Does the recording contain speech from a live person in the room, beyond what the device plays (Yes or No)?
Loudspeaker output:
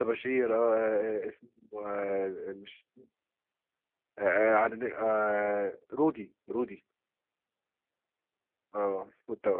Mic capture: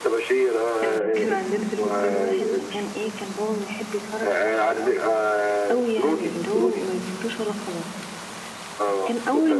Yes